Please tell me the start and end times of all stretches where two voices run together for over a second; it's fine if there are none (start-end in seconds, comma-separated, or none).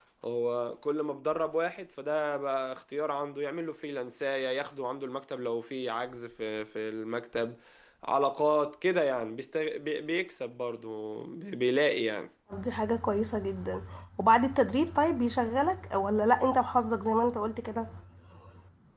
none